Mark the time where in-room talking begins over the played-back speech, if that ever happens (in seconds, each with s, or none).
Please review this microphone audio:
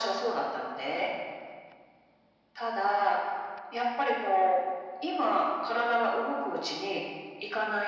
none